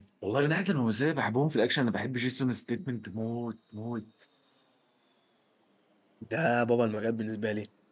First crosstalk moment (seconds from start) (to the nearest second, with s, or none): none